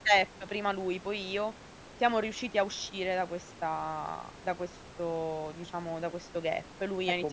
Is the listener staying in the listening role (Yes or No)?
No